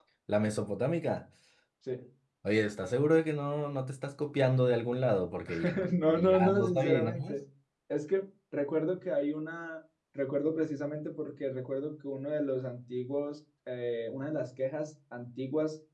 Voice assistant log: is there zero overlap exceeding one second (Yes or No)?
No